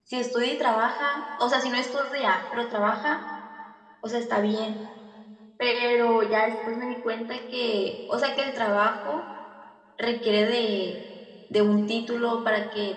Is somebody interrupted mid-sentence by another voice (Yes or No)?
No